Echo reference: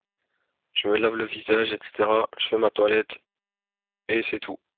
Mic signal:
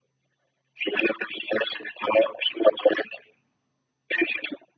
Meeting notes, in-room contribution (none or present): none